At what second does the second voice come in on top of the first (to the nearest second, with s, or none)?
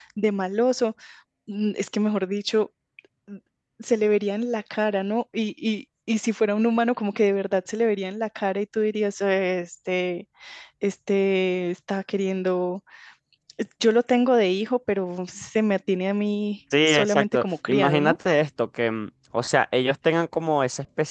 17 s